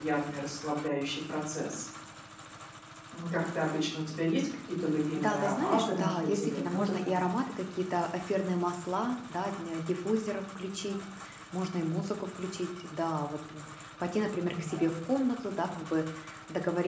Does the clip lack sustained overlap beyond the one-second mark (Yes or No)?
No